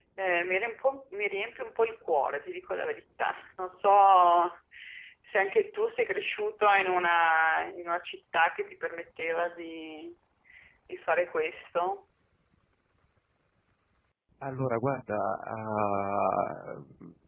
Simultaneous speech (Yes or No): No